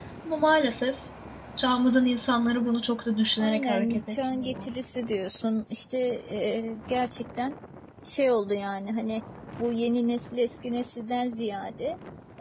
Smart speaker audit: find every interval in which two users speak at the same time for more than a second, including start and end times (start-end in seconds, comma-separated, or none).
3.4-4.7